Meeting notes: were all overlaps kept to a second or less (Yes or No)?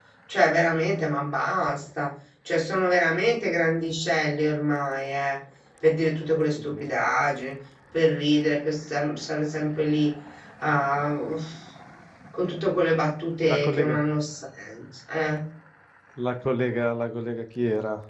Yes